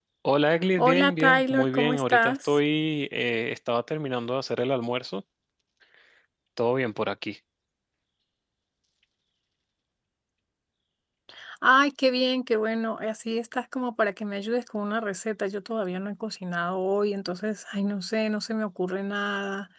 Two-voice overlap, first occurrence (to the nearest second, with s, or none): 1 s